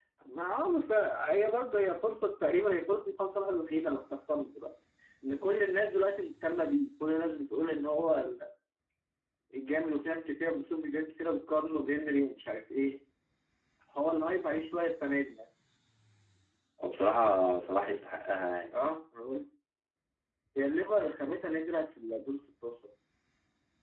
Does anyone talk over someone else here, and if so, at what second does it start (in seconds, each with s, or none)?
none